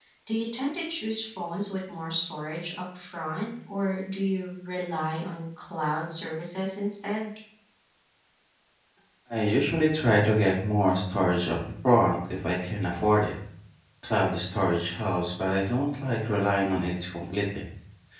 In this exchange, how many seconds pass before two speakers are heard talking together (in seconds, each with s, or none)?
none